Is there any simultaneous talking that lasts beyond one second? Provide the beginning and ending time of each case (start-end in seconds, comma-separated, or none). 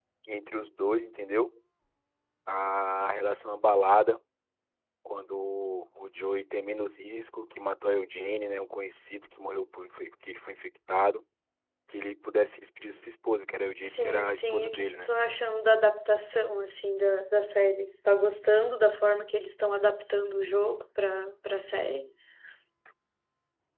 13.8-15.1